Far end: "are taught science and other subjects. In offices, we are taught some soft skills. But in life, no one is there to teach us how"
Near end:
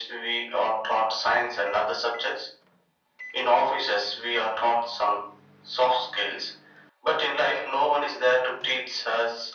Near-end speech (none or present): none